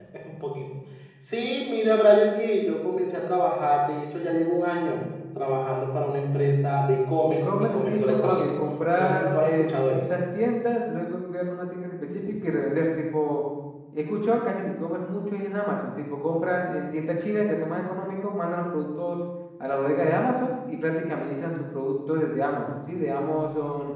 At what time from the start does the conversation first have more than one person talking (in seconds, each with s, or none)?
7.3 s